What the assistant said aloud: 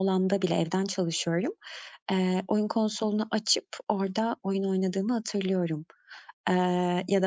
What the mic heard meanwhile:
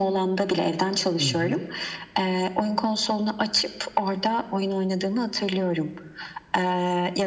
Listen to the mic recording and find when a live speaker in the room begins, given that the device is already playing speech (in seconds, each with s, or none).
1.2 s